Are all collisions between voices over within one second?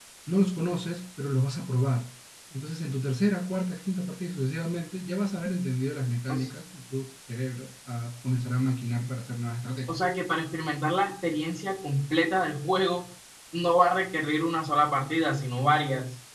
Yes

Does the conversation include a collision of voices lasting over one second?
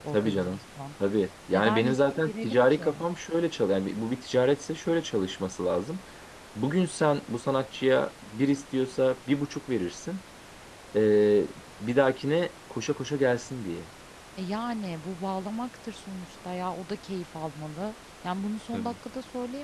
Yes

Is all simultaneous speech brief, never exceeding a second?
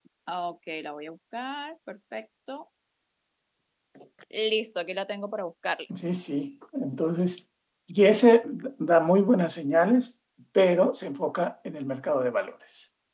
Yes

